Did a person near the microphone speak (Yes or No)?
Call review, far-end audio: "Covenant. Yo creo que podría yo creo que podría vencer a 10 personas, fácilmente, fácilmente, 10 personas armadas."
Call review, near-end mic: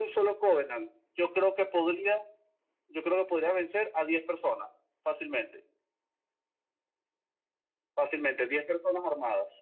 No